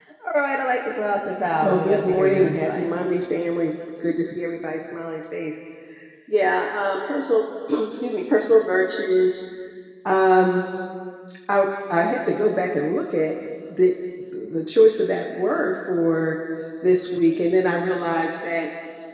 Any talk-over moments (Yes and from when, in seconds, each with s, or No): Yes, from 1.6 s